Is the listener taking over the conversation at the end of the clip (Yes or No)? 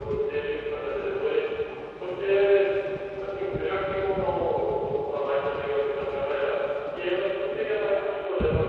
No